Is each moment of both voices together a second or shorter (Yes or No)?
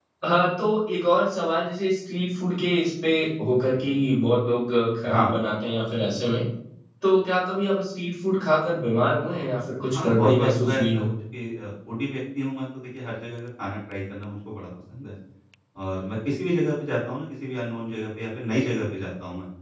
No